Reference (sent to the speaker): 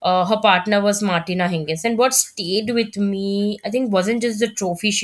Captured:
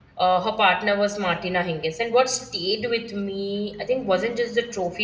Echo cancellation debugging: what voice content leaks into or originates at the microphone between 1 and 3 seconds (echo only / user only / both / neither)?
echo only